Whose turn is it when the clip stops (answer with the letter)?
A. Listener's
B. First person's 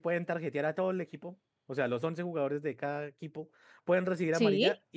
B